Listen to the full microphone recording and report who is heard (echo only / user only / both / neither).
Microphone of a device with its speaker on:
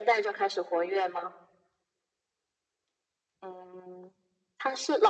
echo only